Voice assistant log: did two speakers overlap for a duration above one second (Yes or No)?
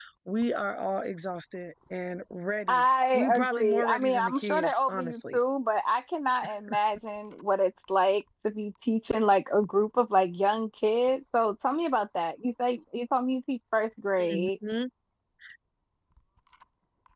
Yes